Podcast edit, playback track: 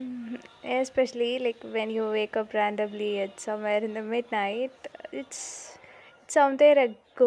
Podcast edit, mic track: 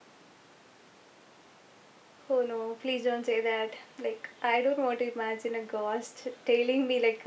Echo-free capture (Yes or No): Yes